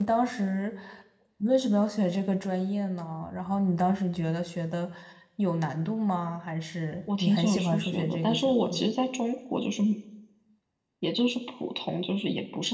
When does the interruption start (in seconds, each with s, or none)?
7.1 s